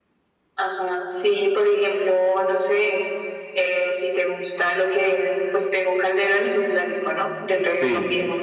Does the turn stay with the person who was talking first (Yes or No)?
No